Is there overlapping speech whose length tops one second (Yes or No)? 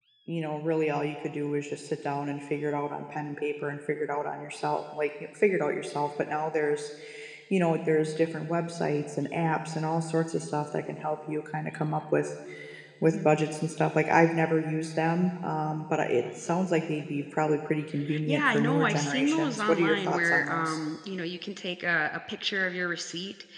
Yes